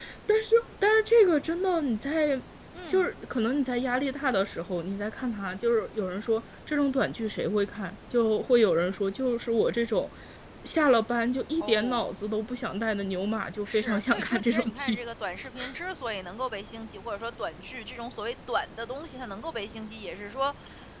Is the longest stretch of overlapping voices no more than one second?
No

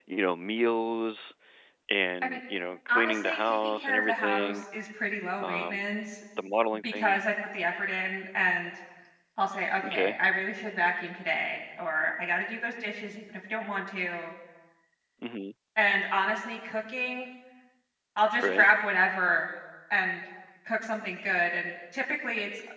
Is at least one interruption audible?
Yes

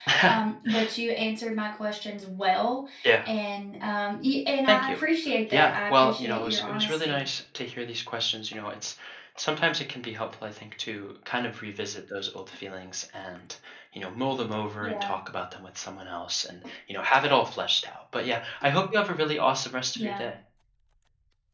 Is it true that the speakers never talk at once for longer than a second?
No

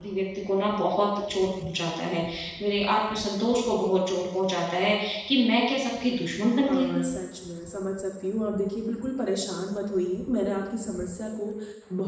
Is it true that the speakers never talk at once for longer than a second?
Yes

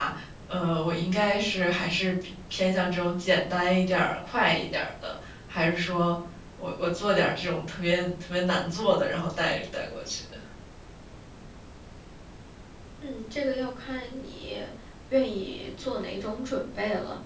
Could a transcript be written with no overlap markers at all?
Yes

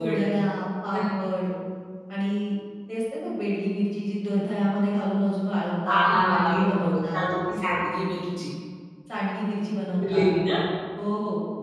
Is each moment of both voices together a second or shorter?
No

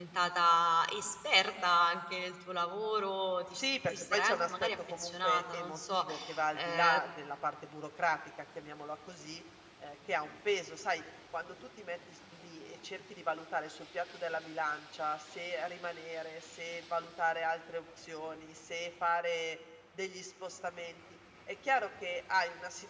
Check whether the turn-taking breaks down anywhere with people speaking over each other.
Yes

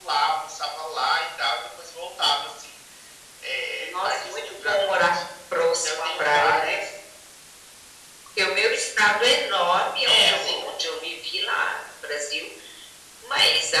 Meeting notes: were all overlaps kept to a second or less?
No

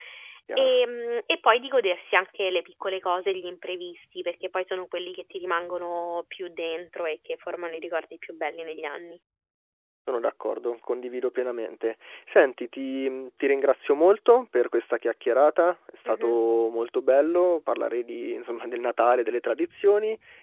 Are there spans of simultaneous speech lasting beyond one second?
No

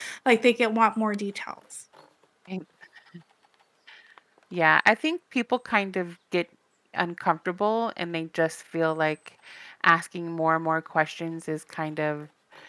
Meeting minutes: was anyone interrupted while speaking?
No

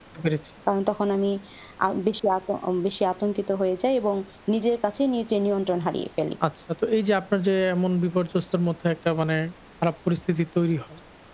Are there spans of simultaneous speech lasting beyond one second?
No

